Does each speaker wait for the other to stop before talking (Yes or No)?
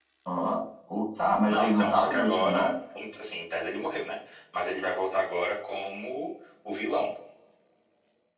No